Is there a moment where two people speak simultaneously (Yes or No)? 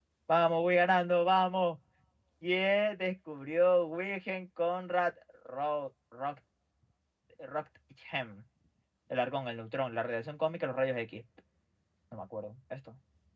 No